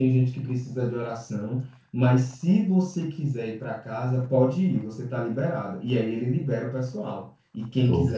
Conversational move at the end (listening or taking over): listening